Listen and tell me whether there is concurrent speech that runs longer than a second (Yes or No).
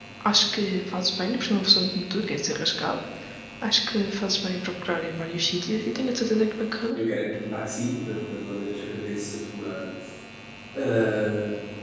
No